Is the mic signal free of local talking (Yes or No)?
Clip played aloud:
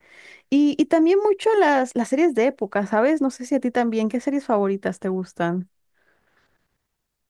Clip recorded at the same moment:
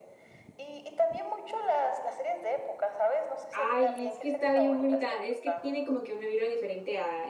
No